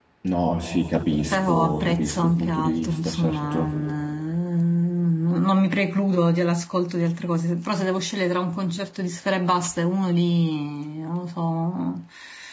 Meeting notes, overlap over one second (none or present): present